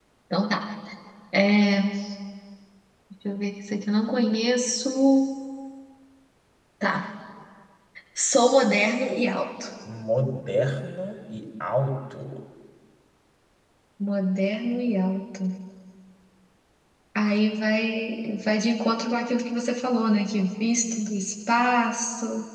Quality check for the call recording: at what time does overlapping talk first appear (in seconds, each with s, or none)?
none